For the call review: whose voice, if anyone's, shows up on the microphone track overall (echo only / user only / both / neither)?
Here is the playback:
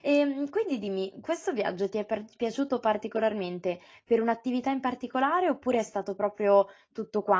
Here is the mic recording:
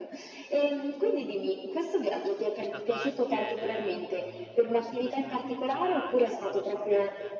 both